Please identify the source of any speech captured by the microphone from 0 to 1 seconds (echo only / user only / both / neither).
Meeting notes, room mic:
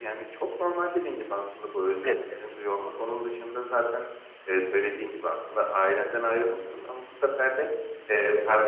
echo only